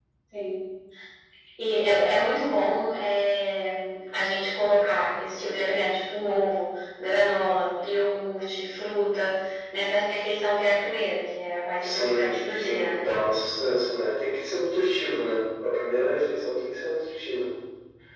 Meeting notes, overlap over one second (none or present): present